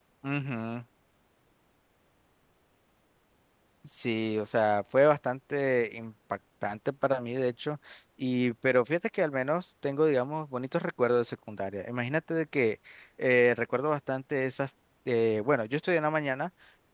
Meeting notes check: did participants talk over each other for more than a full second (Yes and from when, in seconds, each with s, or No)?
No